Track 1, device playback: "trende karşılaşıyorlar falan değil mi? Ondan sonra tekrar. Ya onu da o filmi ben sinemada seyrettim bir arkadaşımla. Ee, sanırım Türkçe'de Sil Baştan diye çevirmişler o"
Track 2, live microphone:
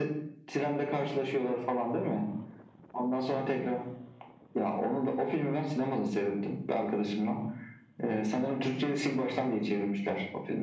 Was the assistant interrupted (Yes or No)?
No